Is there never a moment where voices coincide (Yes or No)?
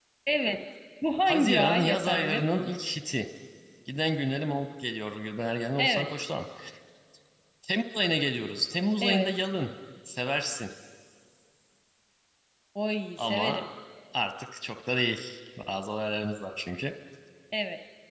No